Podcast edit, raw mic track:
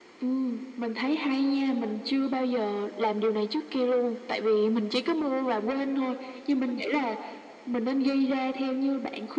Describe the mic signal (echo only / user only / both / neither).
echo only